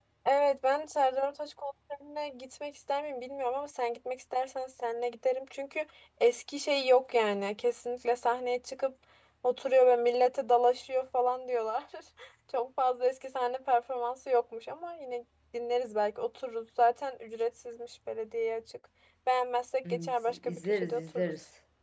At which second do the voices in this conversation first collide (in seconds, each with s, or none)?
19.9 s